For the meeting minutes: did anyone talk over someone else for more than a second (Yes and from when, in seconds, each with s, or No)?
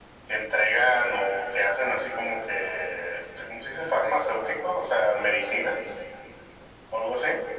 No